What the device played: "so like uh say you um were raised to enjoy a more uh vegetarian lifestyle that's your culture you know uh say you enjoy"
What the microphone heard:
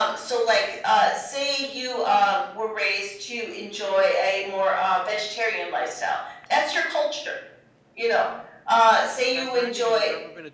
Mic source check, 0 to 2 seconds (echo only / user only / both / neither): echo only